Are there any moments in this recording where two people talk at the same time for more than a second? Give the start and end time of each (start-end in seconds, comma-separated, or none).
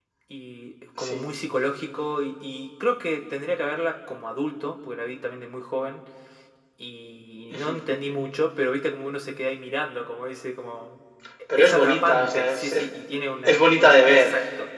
11.6-12.9